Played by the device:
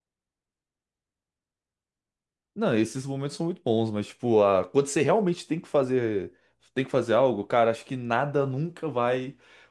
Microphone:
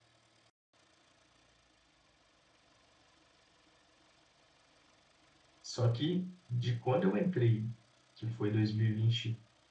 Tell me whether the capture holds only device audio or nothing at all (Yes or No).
No